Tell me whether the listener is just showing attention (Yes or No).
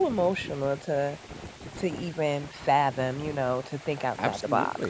No